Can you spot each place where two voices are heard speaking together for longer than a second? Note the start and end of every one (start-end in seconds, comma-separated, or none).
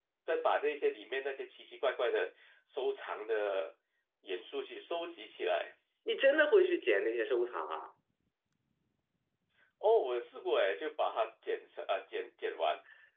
none